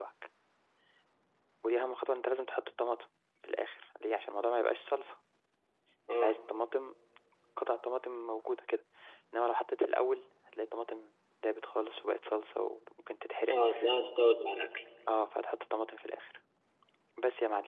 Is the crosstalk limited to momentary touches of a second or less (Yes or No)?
Yes